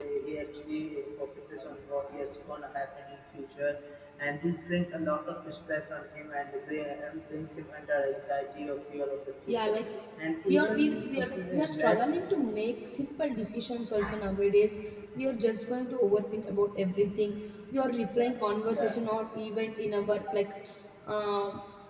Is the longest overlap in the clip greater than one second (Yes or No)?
Yes